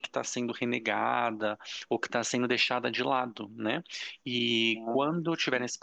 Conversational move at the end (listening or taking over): listening